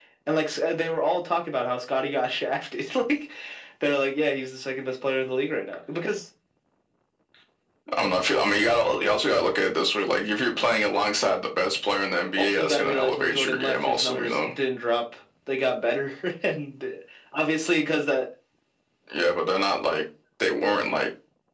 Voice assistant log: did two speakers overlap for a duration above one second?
Yes, from 12.4 s

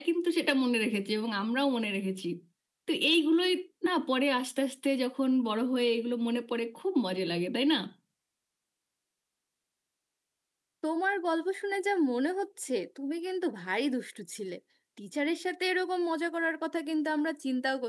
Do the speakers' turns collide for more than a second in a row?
No

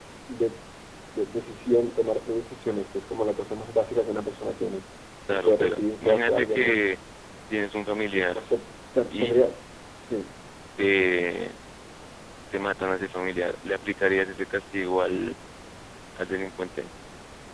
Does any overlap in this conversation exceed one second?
Yes, from 5.3 s

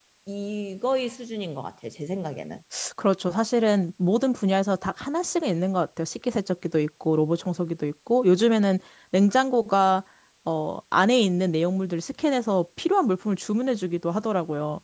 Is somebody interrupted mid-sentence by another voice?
No

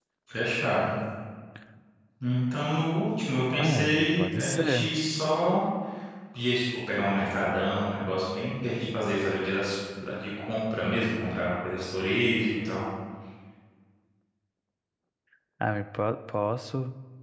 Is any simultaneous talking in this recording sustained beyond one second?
Yes, from 3.6 s

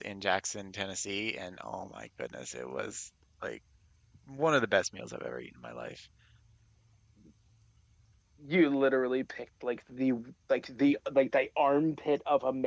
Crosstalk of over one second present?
No

